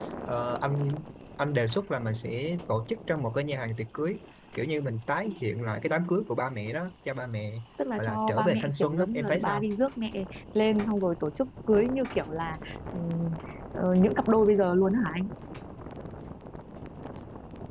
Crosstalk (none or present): present